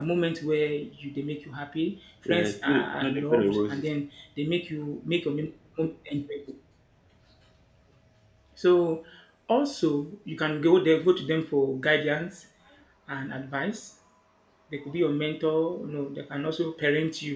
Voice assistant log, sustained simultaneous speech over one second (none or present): present